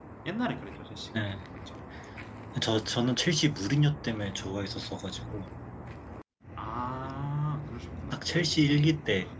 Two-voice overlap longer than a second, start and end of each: none

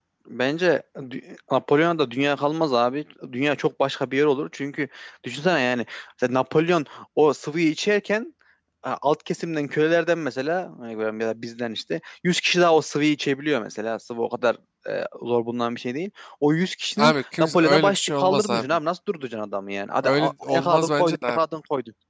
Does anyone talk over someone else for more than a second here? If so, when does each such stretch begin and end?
17.0-18.6, 20.0-21.4

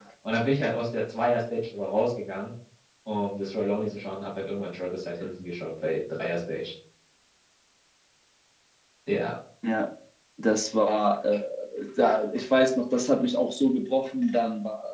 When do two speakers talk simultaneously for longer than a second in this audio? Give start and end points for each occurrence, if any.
none

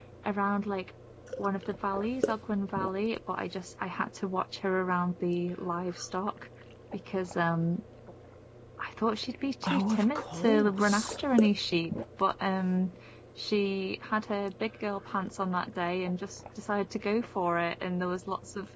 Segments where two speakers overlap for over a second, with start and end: 9.6-11.2

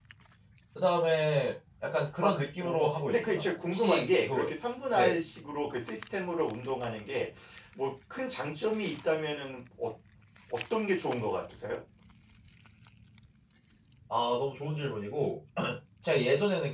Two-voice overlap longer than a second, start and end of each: 2.2-4.5

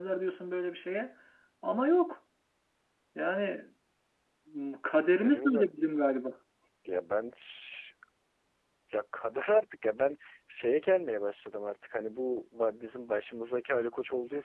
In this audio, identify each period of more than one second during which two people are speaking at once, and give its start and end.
none

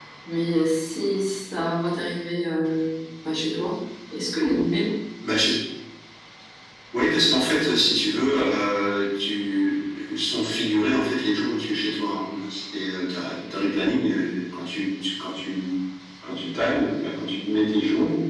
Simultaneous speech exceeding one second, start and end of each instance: none

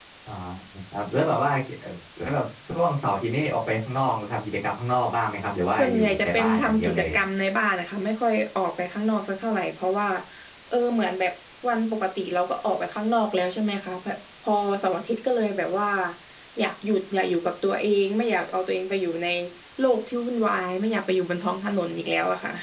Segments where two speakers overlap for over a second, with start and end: 5.8-7.1

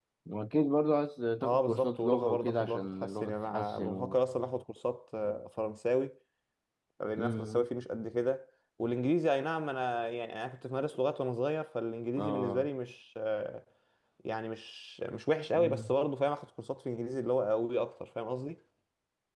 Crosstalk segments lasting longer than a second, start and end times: 1.4-4.2

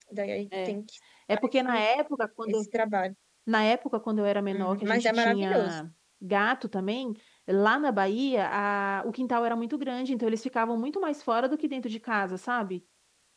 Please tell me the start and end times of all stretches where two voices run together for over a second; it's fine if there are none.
4.5-5.8

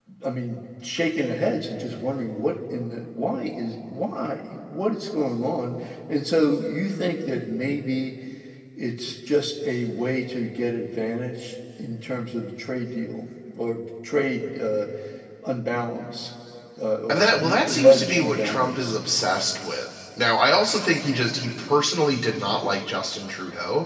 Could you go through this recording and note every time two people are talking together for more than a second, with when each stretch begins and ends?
17.1-18.9

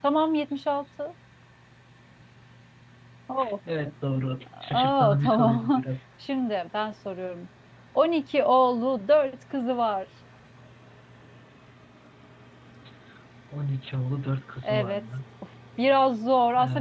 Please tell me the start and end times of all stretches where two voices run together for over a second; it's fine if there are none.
4.6-5.8

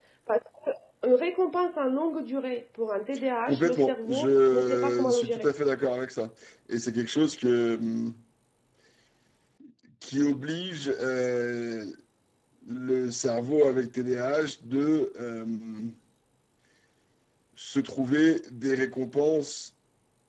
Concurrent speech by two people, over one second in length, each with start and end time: 3.5-5.5

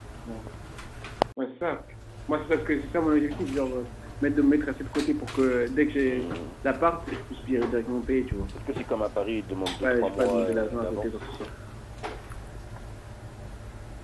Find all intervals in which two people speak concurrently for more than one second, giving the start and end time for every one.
9.8-11.2

